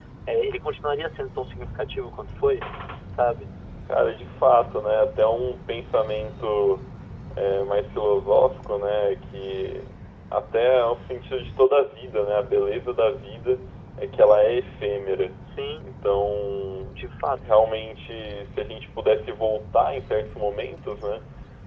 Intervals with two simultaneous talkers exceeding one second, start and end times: none

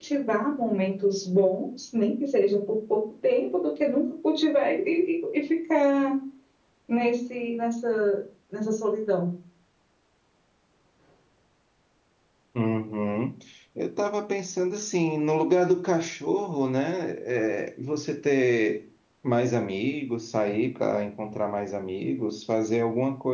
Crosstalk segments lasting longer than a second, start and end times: none

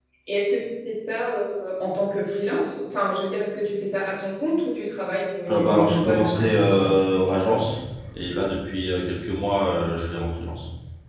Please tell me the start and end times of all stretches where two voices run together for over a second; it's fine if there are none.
5.5-6.9

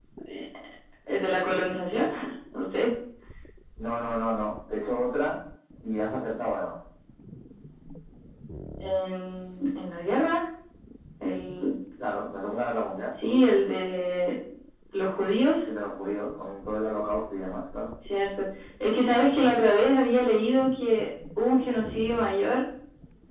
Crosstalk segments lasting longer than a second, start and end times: none

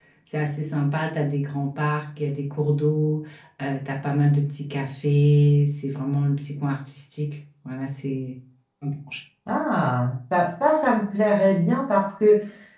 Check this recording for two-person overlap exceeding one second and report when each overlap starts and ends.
none

